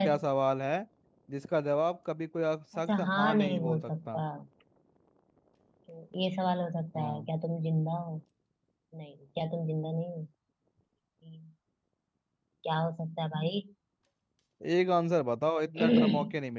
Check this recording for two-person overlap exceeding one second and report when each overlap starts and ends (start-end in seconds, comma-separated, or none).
2.9-4.2